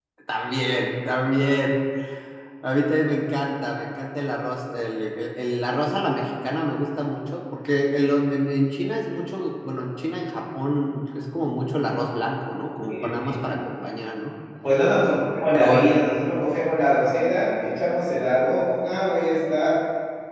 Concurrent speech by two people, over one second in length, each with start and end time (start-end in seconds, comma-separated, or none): none